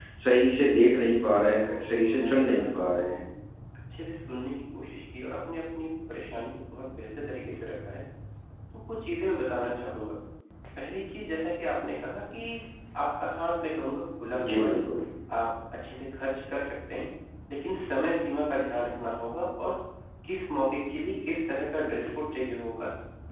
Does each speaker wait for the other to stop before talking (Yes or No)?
No